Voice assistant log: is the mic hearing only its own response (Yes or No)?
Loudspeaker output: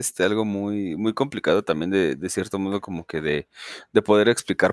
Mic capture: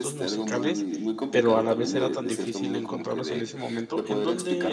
No